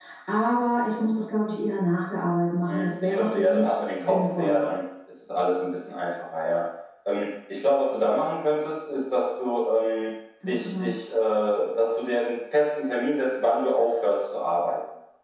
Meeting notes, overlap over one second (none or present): present